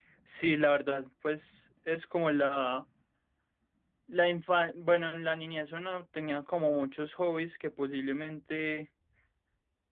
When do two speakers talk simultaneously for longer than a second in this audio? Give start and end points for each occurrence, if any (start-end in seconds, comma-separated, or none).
none